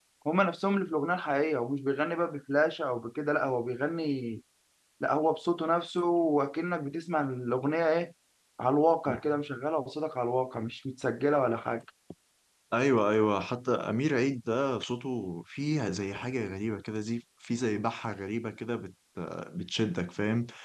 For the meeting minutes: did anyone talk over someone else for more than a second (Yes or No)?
No